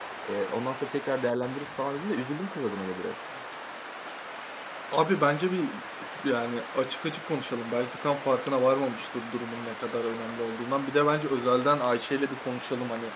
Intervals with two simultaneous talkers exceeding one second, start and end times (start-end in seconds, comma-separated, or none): none